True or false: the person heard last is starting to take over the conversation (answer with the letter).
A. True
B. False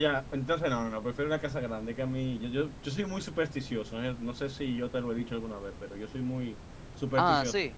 B